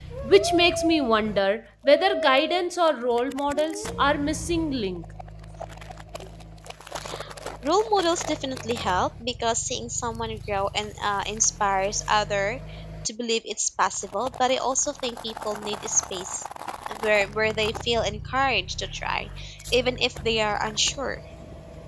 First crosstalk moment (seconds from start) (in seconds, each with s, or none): none